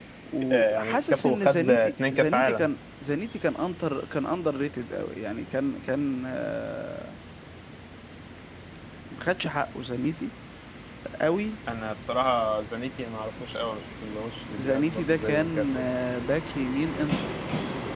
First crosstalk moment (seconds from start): 0.5 s

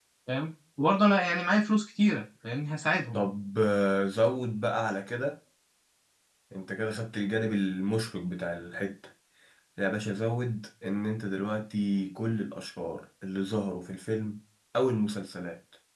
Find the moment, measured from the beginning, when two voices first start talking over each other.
none

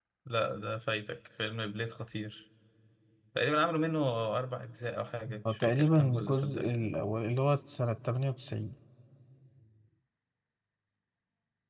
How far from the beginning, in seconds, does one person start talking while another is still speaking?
5.3 s

